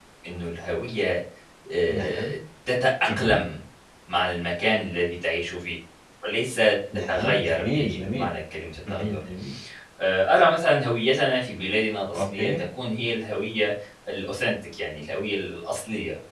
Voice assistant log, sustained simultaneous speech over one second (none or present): present